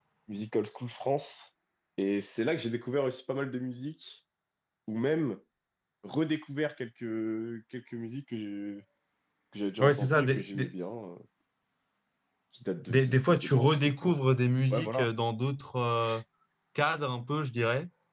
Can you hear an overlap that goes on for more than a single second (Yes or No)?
Yes